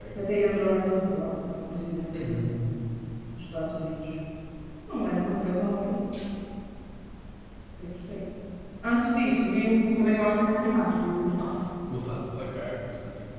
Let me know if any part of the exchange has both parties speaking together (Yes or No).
No